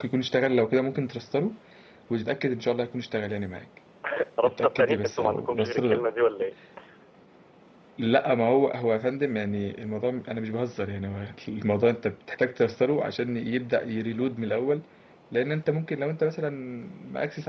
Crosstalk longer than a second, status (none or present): present